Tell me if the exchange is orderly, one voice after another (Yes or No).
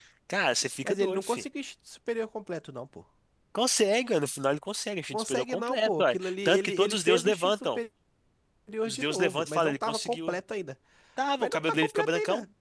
No